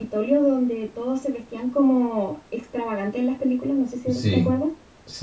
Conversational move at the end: taking over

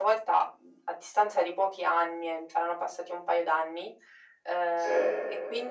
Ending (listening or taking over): listening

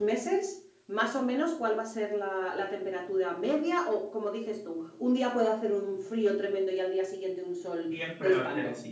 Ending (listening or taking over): taking over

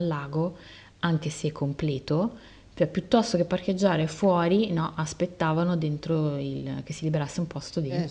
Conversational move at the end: taking over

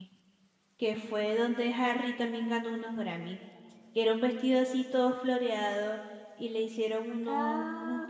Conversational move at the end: listening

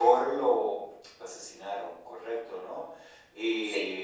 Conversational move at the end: listening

